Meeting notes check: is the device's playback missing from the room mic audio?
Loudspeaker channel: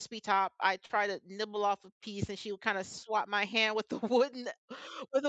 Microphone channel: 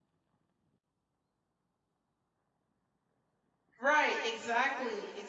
Yes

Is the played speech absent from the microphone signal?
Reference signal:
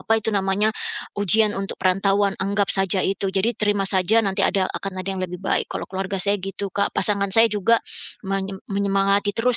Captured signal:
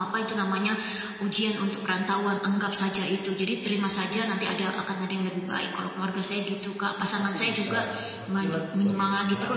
No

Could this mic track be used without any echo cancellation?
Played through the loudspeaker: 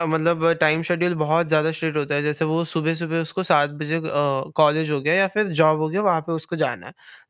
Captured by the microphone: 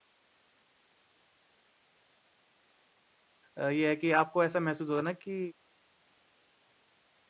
Yes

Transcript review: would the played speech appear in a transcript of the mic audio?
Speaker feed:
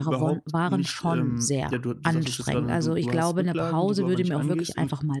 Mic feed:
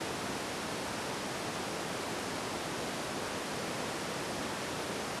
No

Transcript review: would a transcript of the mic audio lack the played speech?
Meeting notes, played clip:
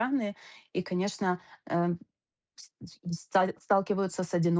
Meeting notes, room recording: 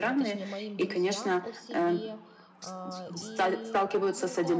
No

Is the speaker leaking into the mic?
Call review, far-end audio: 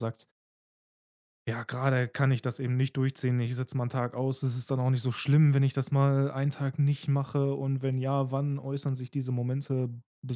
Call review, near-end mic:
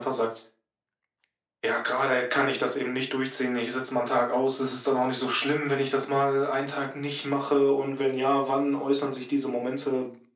Yes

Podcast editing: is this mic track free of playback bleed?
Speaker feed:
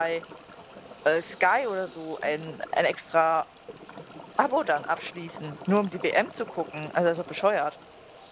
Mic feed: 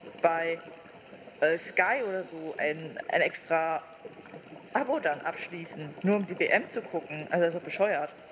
No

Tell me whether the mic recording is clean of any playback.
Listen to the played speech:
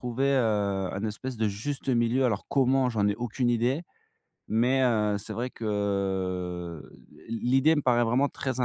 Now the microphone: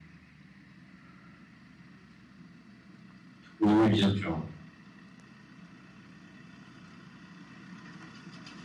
Yes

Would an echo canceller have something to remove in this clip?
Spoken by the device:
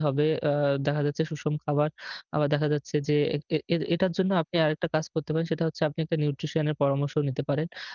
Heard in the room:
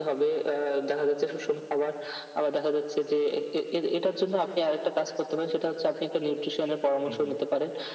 Yes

